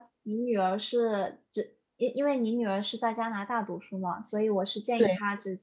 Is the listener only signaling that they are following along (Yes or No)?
Yes